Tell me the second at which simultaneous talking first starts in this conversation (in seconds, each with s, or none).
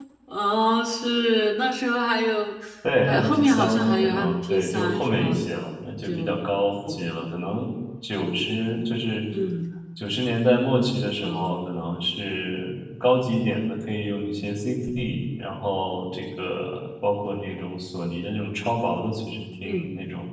3.1 s